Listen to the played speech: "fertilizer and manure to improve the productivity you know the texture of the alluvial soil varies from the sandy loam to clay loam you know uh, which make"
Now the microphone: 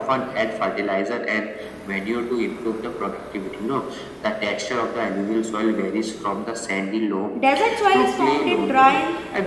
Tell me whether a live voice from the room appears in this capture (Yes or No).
Yes